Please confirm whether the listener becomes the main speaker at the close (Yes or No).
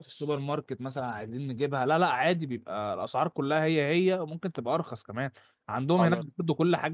No